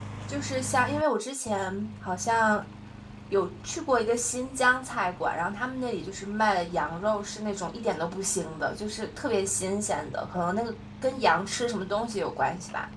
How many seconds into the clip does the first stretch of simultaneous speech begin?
none

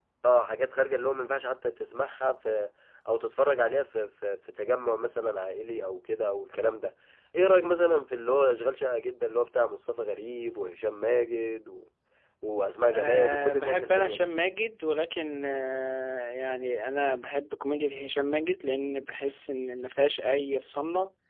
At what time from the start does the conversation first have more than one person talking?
12.9 s

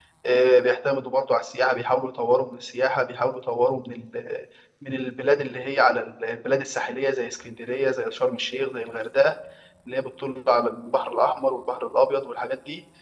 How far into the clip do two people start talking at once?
none

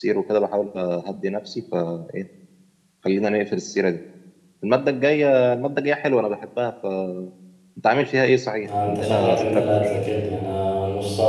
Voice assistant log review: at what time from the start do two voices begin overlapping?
8.6 s

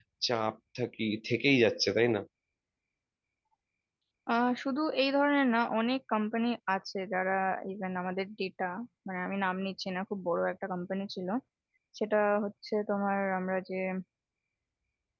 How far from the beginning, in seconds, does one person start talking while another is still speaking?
none

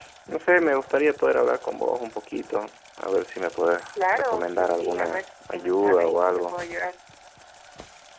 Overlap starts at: 4.0 s

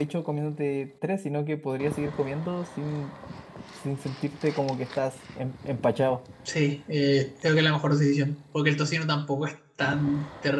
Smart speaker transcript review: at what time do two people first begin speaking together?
none

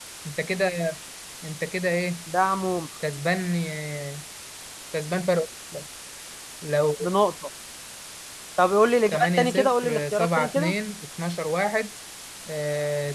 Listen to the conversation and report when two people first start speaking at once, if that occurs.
9.1 s

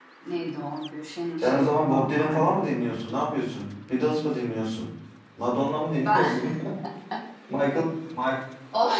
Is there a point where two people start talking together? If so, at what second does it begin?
1.4 s

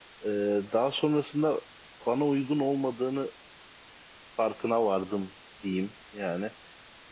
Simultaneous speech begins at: none

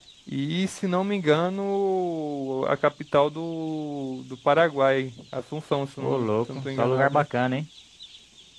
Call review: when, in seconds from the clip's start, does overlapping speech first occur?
6.0 s

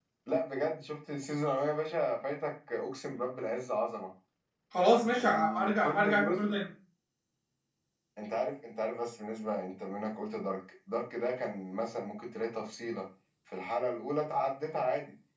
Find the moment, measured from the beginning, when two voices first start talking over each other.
5.2 s

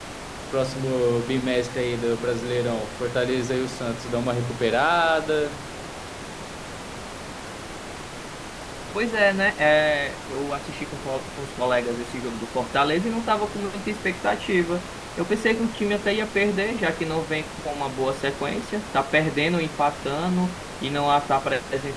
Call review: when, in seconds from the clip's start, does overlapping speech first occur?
none

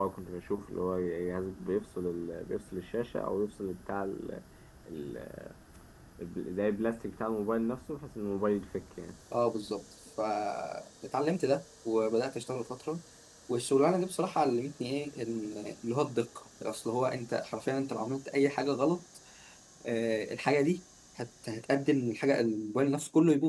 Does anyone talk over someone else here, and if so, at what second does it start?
none

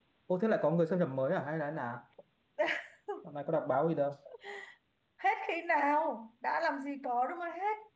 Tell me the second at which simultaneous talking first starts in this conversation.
none

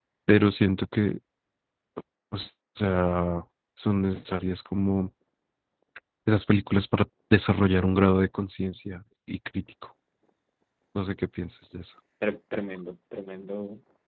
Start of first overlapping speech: none

